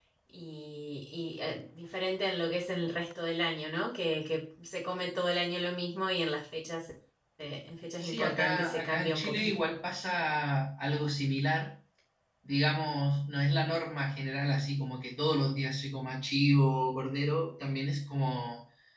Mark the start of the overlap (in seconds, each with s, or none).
8.0 s